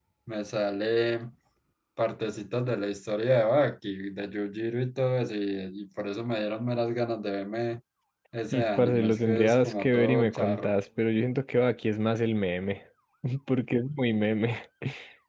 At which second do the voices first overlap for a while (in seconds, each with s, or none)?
8.5 s